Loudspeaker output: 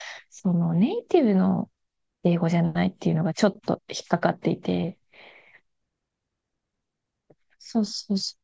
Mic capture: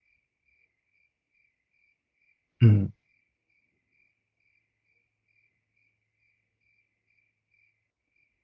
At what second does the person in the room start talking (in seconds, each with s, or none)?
2.6 s